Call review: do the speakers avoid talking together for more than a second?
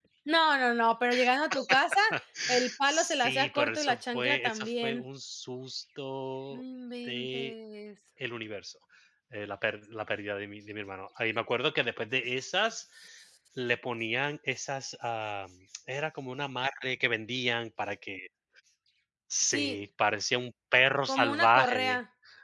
No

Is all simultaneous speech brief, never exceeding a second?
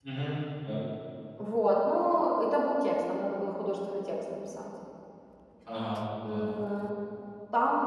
Yes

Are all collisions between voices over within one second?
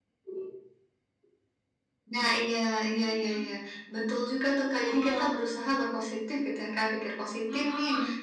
Yes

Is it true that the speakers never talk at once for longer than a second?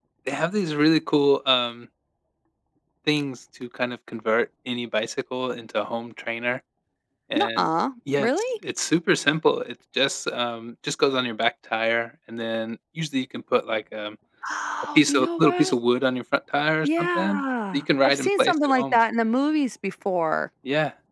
No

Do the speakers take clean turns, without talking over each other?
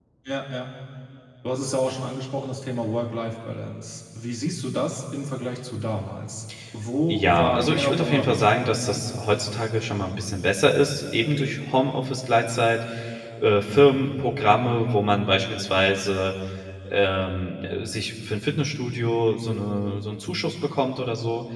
No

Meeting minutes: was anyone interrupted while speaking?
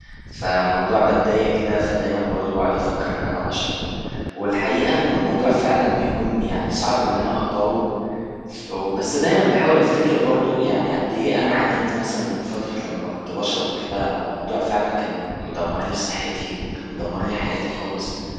No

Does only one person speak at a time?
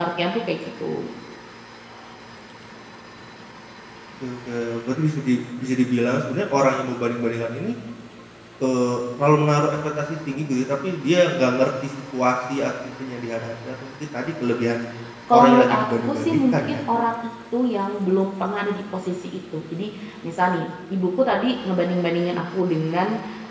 No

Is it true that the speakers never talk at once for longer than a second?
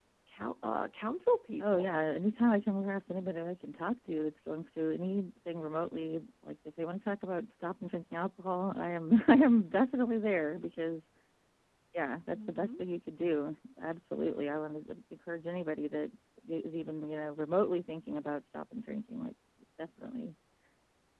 Yes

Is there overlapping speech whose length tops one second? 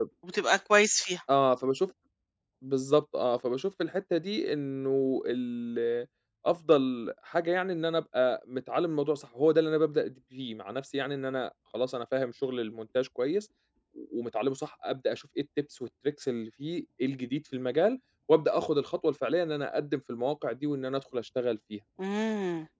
No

